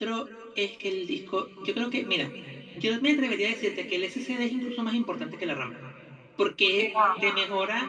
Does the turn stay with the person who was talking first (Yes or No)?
Yes